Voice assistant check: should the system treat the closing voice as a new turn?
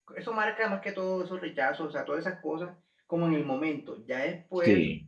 No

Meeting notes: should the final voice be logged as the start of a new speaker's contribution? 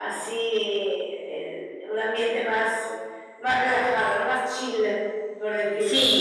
Yes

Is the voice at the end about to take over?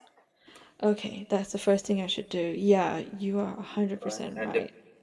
Yes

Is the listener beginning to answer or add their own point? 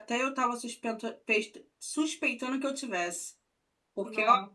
No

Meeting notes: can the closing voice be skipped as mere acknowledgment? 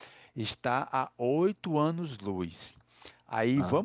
Yes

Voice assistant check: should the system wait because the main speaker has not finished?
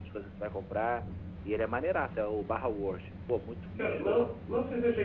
No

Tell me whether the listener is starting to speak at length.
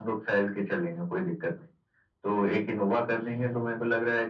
No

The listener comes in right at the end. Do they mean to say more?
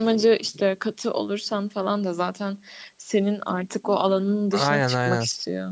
Yes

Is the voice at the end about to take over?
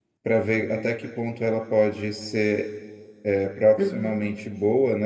No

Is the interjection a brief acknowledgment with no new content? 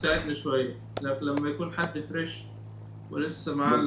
No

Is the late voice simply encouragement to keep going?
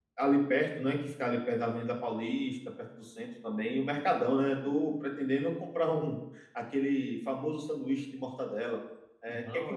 Yes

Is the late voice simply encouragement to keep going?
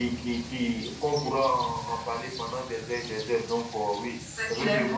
Yes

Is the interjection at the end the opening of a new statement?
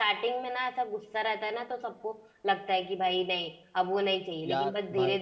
No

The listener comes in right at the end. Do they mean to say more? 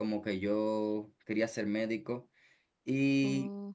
No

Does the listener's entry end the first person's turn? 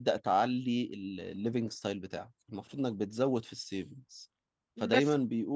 No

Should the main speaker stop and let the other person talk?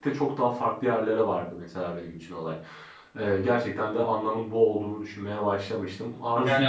Yes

